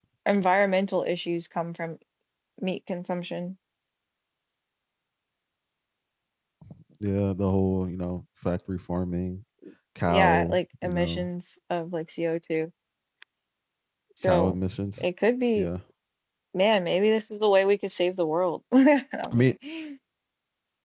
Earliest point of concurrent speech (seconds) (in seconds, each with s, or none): 10.1 s